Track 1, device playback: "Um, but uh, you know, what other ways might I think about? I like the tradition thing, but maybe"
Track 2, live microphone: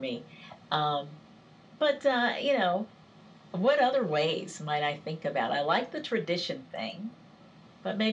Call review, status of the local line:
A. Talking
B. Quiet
B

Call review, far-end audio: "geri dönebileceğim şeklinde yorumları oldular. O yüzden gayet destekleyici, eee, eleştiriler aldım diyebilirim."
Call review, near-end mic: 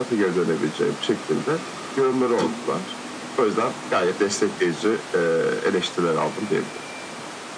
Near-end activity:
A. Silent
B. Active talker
A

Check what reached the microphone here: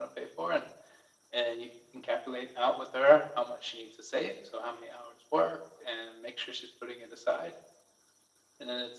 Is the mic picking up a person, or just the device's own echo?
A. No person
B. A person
A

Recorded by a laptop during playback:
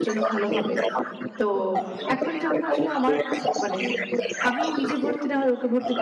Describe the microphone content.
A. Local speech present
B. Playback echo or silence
A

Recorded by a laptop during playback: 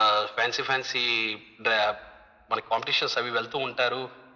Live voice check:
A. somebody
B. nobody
B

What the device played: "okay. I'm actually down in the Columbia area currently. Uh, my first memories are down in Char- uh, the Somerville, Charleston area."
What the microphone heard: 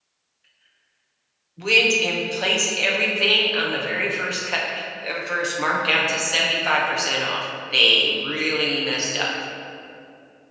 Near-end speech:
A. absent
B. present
B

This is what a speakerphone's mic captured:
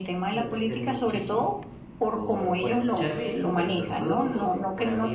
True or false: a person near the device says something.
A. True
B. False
A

